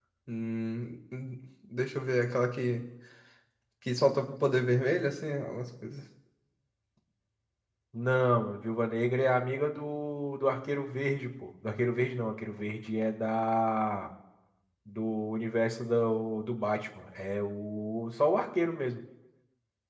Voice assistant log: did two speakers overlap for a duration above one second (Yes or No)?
No